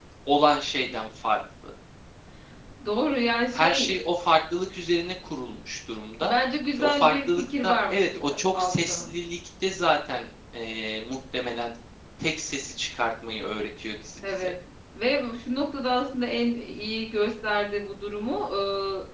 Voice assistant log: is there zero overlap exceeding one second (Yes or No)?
No